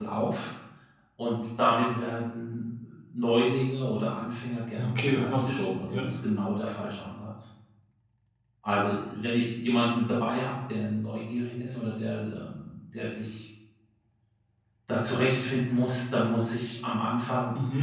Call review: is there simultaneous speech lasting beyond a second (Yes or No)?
Yes